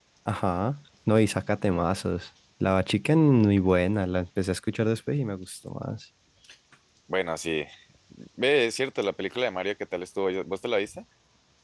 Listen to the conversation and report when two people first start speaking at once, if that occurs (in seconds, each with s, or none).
none